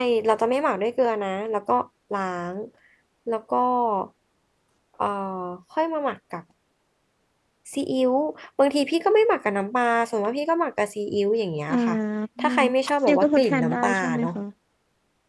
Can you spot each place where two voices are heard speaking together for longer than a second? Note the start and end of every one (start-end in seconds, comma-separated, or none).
13.1-14.3